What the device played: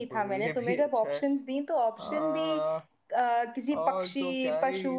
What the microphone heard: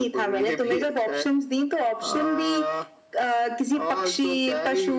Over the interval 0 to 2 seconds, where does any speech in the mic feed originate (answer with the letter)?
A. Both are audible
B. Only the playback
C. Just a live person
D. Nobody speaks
B